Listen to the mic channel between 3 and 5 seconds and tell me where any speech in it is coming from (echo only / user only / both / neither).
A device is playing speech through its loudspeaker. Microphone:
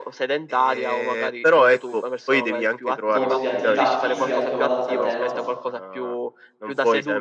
both